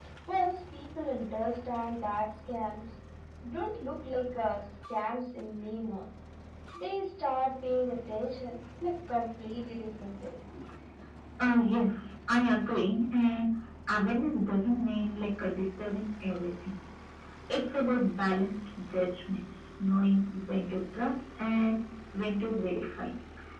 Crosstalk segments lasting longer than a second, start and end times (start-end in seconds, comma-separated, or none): none